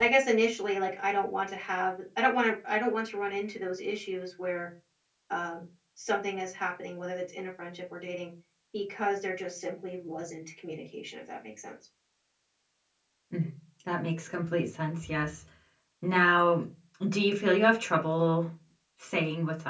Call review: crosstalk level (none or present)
none